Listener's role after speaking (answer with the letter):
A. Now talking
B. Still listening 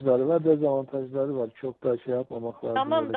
A